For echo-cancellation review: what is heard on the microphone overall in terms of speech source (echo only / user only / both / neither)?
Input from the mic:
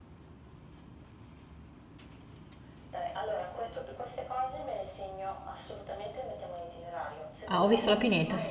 both